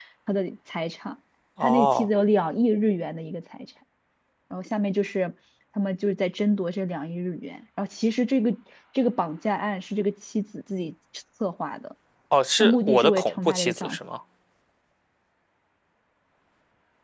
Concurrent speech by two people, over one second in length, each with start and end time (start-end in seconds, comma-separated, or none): 12.6-14.0